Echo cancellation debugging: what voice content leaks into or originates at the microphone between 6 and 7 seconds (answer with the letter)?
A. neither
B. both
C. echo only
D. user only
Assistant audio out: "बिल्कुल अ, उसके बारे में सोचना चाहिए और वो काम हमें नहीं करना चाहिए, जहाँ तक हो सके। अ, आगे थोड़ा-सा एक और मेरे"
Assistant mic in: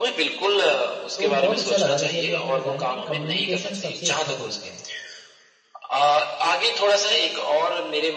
C